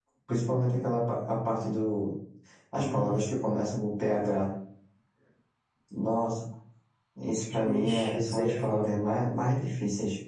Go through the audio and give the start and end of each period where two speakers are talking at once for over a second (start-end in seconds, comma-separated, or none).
7.6-8.9